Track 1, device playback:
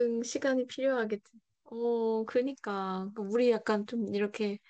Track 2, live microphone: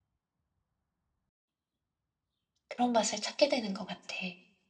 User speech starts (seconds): 2.7 s

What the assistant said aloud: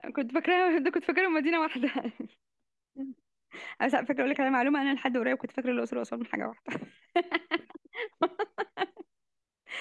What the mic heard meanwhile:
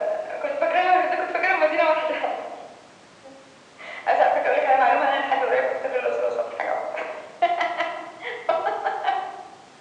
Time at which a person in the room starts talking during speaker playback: none

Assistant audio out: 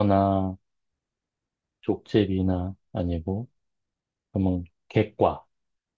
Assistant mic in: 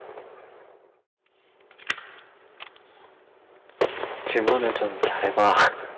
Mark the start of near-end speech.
4.2 s

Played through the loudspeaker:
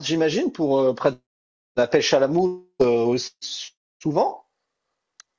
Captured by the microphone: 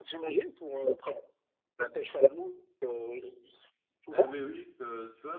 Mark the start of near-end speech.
4.1 s

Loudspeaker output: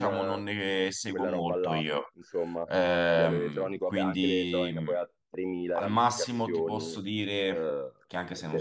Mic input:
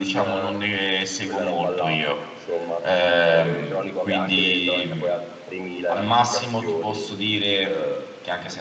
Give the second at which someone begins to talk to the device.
none

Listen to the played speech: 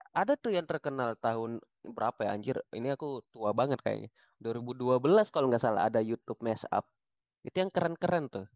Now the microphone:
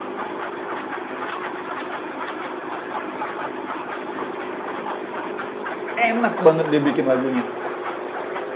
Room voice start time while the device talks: 6.0 s

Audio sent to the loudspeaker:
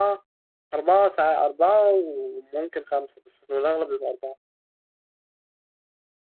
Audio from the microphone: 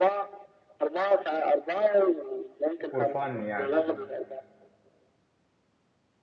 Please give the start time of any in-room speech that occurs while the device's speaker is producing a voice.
2.9 s

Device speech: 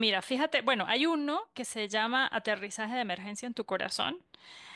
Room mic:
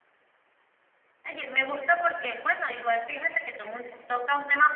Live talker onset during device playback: 1.2 s

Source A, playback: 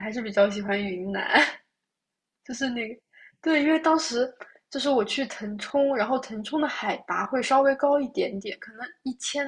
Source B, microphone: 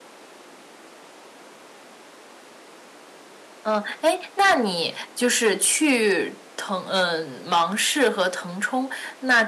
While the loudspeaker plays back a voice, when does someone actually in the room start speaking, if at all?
3.6 s

